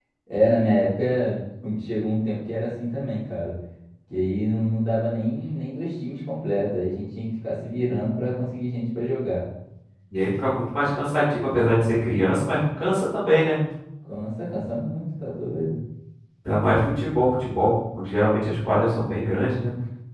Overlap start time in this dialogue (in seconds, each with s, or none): none